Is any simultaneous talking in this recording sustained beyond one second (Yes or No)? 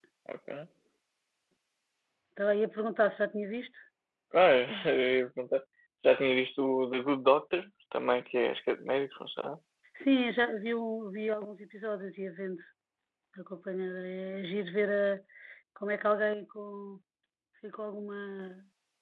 No